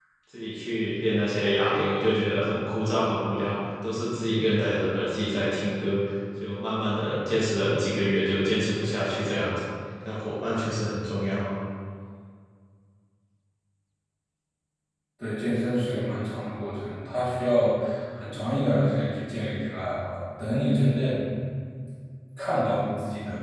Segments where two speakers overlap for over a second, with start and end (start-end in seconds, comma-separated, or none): none